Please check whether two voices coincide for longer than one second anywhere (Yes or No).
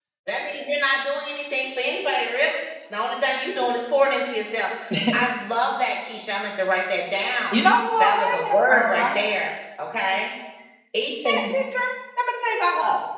Yes